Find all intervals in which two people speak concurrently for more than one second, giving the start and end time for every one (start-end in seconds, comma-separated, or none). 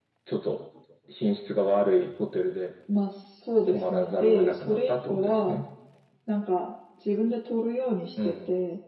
3.7-5.6